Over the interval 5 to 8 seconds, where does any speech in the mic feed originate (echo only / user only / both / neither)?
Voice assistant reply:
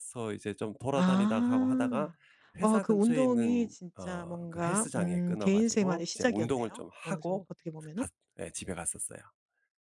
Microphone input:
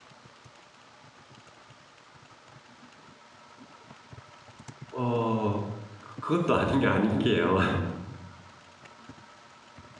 user only